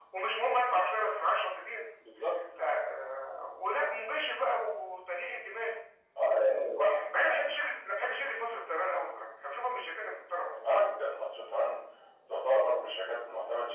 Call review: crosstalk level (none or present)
none